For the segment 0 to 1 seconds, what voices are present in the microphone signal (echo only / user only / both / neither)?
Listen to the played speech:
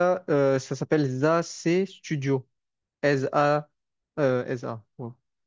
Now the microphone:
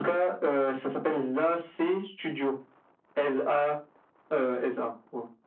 echo only